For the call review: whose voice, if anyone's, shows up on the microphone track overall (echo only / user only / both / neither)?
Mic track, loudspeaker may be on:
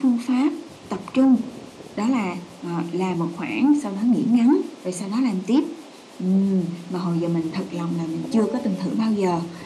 both